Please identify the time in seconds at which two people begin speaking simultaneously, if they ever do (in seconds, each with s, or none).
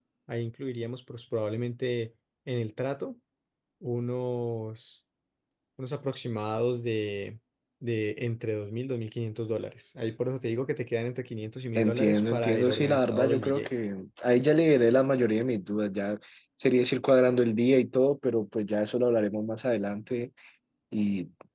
11.8 s